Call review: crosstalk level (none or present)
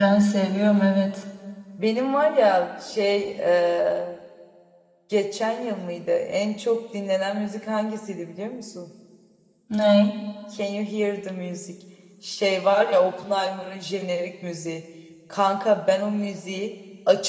none